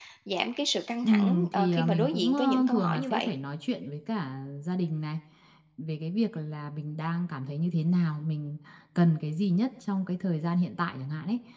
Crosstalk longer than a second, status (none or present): present